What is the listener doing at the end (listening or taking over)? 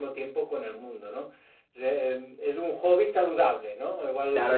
taking over